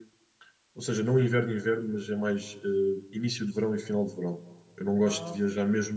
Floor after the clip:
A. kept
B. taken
A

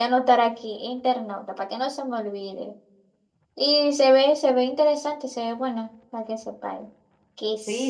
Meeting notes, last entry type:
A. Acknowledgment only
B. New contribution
B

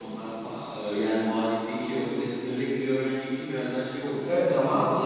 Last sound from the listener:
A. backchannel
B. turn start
B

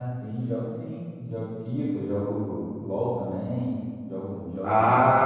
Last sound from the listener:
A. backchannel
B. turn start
B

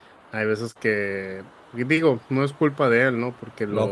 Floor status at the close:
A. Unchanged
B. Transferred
A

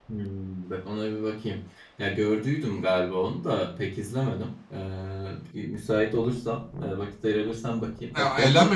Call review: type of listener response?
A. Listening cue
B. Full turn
B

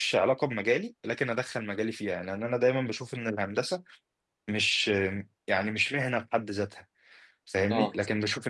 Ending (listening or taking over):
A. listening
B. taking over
A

